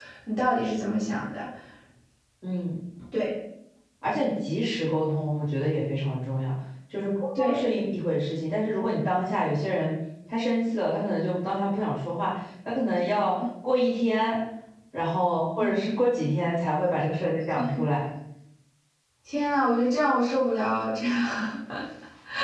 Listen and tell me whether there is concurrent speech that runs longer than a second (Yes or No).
No